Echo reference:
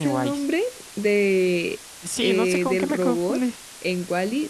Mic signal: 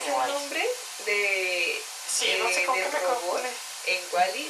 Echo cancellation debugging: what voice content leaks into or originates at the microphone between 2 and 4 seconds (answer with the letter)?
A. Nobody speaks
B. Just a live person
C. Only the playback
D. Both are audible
C